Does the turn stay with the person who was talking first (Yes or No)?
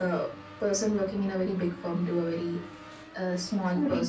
Yes